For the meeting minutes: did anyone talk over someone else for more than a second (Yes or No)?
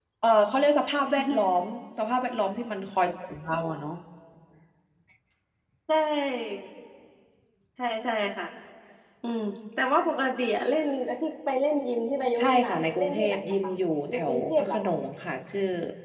Yes